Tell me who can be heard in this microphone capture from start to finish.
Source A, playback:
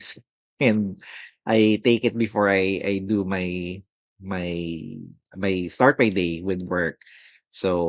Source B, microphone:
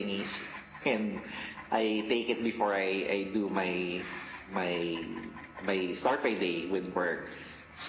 echo only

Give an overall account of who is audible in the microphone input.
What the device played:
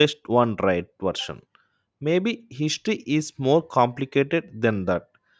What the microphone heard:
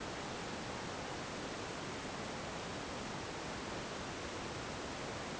neither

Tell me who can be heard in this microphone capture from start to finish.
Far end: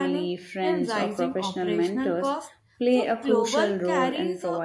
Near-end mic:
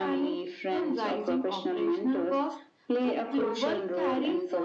echo only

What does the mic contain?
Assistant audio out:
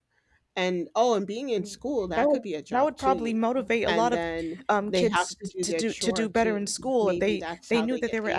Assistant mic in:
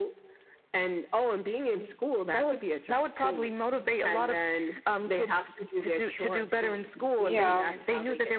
both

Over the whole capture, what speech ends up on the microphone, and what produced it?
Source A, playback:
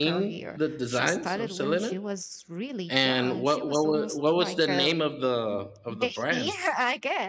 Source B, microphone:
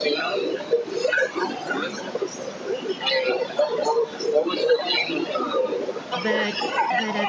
both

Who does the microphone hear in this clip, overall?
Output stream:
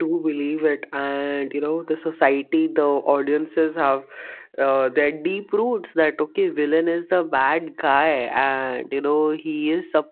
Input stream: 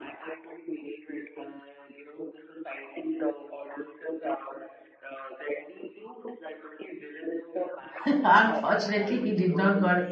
both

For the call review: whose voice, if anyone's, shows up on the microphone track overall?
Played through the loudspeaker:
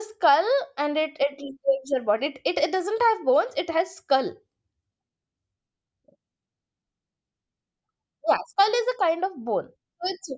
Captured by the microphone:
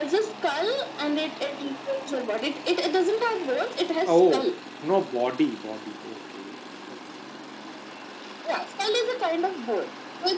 both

